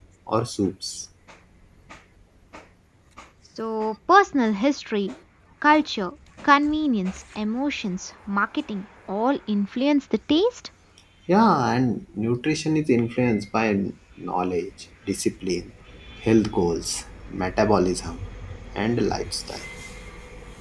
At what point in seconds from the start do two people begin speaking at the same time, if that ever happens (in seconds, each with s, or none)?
none